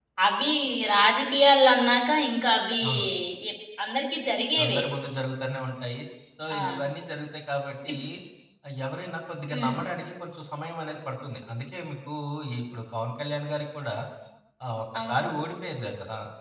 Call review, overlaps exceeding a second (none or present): none